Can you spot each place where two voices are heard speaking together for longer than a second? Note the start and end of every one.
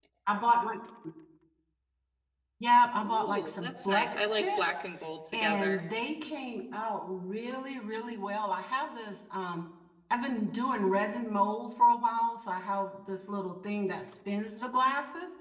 3.0-4.8

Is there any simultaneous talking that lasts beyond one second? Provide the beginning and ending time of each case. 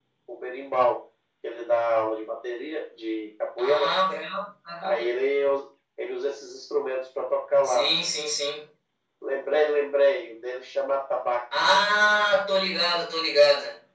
none

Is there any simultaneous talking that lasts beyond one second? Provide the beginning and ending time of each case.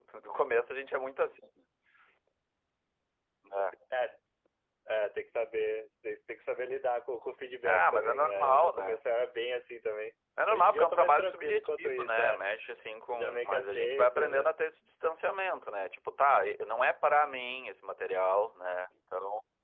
7.7-9.0, 10.5-12.4, 13.1-14.5

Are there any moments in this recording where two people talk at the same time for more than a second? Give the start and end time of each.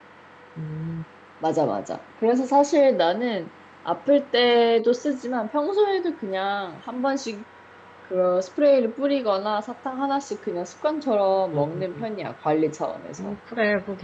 none

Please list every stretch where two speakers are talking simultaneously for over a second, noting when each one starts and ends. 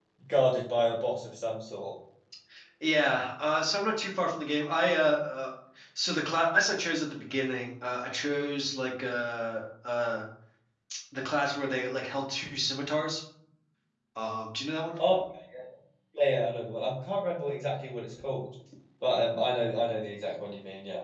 none

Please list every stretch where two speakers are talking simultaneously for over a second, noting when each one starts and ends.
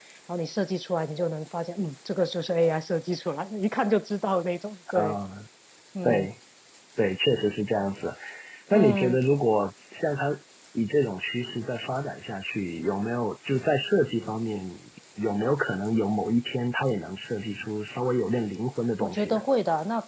none

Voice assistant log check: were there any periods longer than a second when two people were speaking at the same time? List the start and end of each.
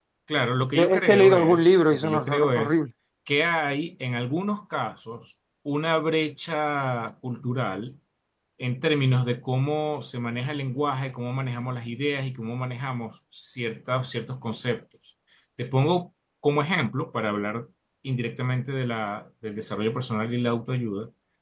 0.7-2.8

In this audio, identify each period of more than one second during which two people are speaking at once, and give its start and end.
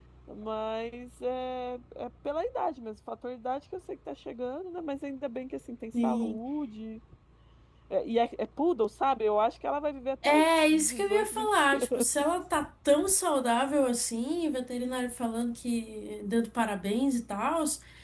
10.2-12.1

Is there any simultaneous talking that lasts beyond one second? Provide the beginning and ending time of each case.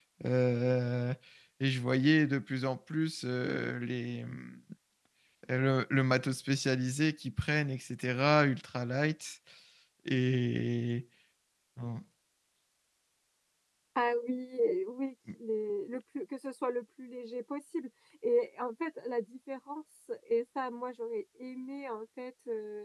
none

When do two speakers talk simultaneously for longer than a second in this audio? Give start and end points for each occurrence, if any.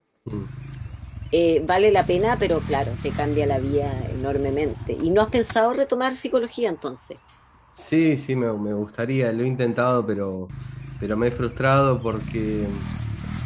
none

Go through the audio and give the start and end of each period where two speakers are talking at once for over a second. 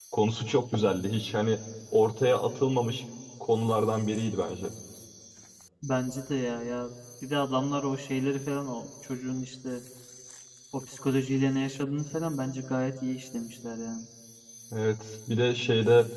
none

